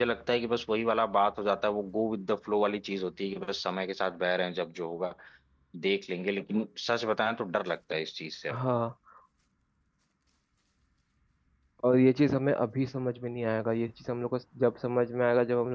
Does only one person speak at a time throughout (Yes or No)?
Yes